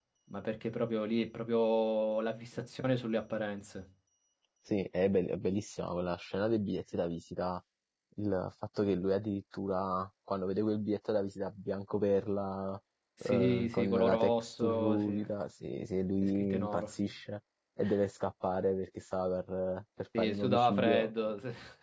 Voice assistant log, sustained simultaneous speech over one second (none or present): present